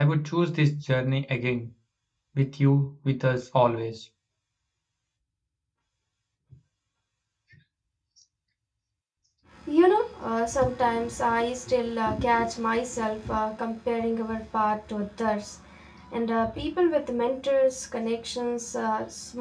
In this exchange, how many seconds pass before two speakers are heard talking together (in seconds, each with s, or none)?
none